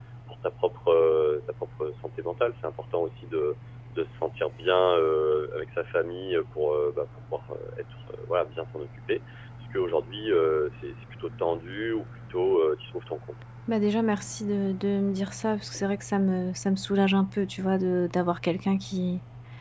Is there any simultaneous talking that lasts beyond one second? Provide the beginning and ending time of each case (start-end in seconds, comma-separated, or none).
none